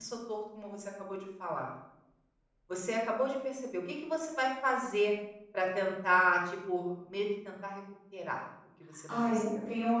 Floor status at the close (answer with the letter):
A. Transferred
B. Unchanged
A